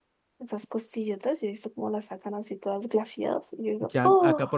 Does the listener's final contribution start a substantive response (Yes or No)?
Yes